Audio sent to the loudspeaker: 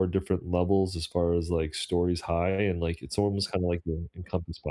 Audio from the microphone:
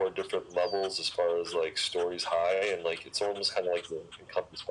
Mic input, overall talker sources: echo only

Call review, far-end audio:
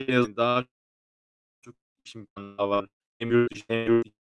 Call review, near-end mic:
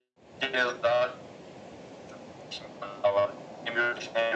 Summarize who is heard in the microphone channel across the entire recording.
echo only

